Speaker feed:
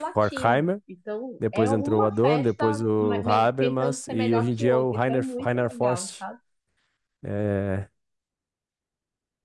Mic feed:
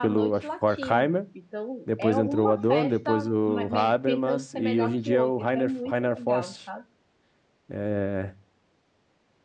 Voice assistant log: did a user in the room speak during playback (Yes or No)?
No